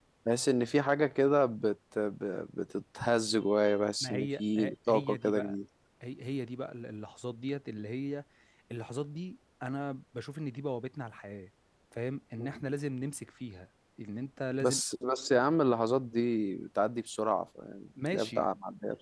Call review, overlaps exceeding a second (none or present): present